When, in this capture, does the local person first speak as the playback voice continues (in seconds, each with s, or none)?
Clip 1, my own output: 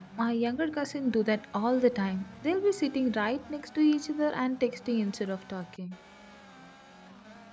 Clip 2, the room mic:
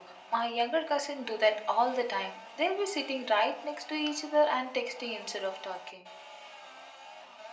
none